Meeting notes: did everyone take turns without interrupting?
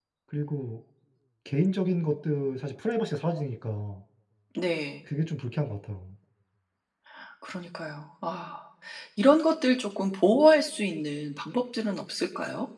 Yes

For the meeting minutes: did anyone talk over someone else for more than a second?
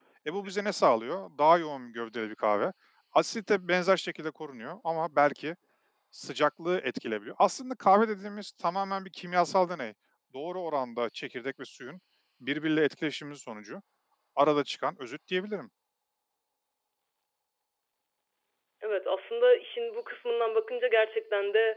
No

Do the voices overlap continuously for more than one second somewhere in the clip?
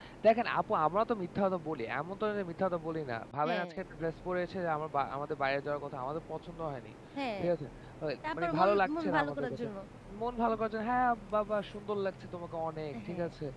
Yes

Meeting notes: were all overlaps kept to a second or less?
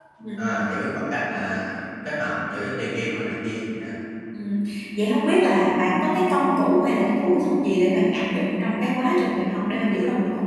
Yes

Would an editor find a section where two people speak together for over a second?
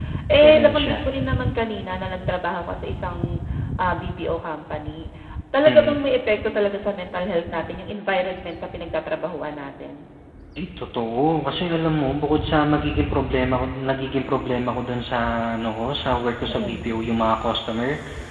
No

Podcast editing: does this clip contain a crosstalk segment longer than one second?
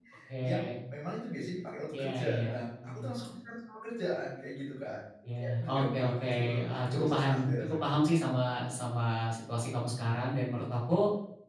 Yes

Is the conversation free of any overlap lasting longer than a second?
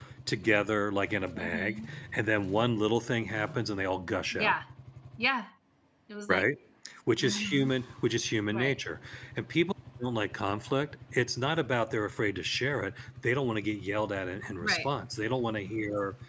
Yes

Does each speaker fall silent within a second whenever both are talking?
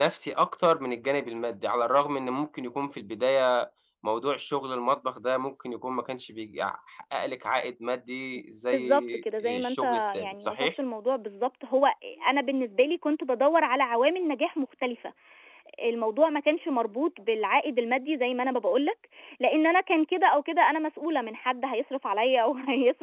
No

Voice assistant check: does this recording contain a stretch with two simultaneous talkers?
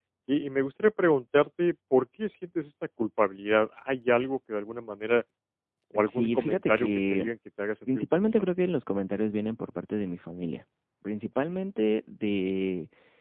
Yes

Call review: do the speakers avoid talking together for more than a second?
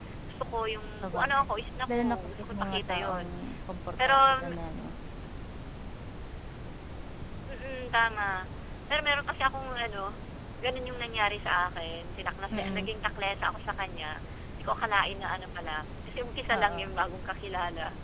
No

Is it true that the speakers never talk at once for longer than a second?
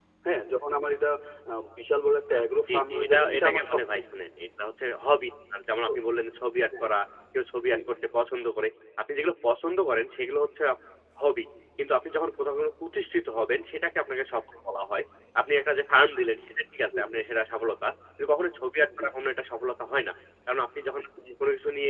No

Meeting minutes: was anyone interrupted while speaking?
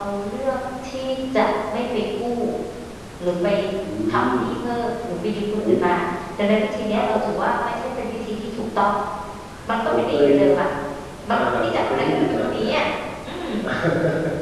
Yes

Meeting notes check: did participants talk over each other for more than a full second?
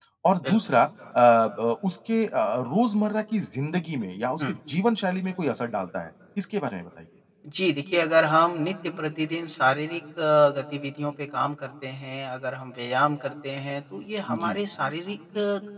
No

